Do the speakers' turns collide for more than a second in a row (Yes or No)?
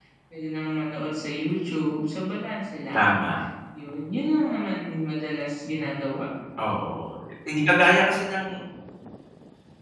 No